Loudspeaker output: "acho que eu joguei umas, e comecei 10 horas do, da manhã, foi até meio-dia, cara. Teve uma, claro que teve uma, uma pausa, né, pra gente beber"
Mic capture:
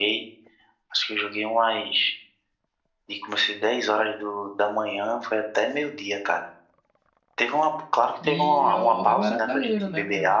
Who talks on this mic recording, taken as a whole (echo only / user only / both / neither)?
both